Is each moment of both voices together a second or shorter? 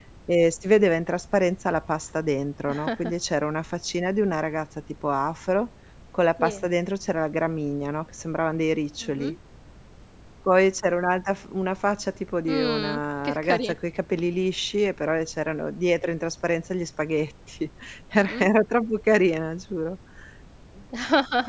No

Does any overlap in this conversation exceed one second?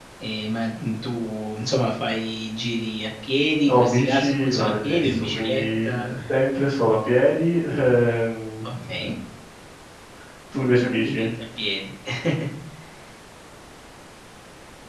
Yes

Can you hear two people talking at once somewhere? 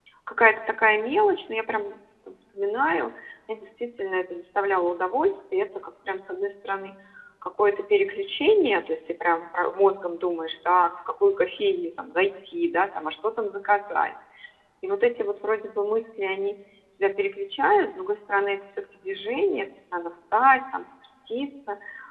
No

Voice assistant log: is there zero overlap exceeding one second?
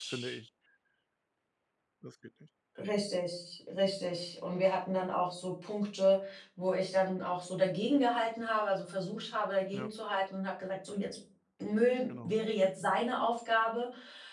Yes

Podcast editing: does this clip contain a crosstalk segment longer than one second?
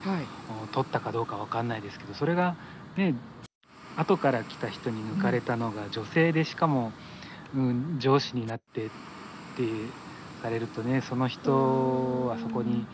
Yes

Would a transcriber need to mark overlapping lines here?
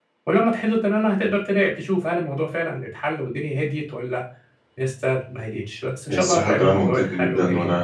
Yes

